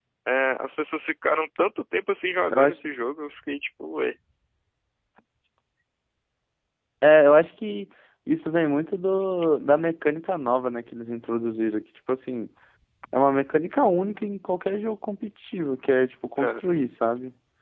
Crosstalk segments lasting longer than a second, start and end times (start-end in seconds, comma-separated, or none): none